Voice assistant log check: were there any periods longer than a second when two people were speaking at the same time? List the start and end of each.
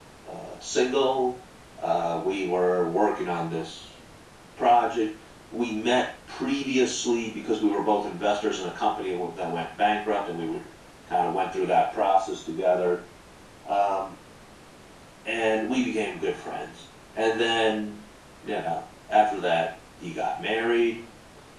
none

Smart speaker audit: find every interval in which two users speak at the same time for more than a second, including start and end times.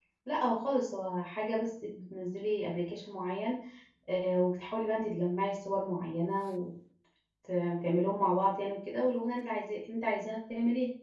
none

